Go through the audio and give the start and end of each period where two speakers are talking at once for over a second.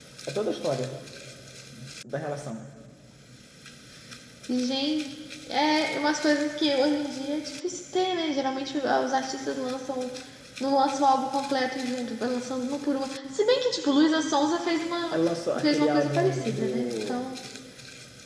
15.6-17.1

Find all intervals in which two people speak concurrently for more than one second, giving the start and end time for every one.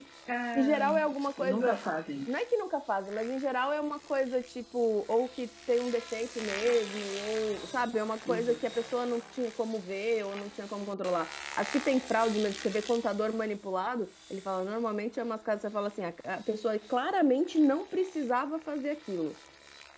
none

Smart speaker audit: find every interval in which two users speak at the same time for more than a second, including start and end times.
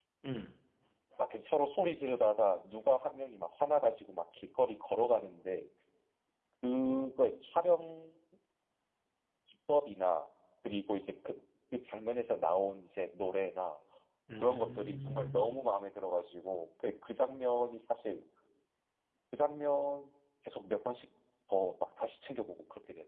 14.4-15.6

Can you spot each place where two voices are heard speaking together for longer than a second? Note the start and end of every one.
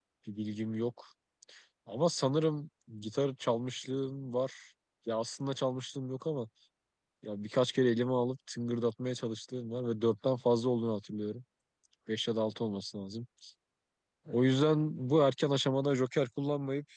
none

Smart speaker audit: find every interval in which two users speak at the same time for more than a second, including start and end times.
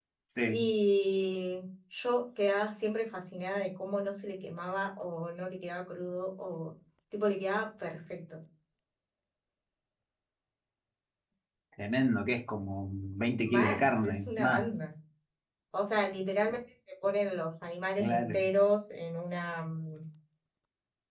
13.4-14.9

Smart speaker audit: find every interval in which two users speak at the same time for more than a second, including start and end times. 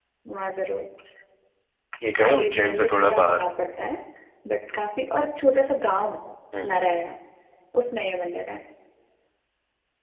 2.2-3.4

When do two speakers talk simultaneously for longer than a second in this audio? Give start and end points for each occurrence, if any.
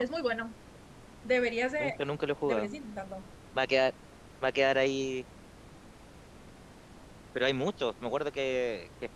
none

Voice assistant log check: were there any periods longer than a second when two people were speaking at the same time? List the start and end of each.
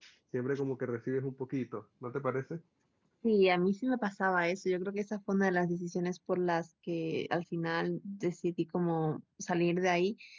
none

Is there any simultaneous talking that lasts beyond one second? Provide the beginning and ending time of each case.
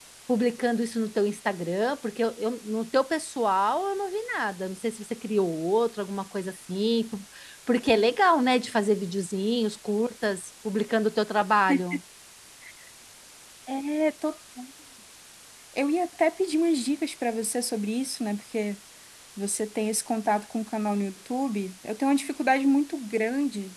none

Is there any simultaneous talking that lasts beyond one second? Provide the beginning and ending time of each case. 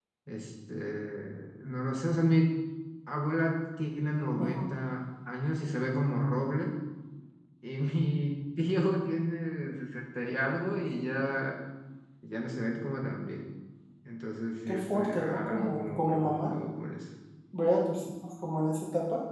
14.7-16.6

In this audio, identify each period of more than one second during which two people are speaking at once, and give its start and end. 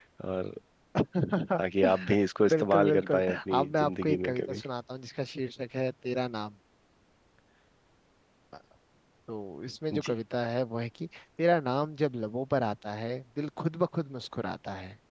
2.5-4.6

